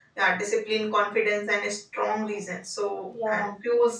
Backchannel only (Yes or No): Yes